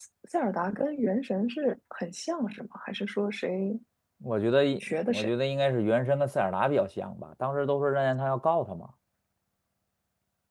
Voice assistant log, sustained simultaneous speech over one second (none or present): none